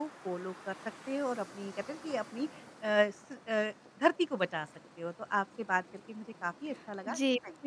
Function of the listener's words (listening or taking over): taking over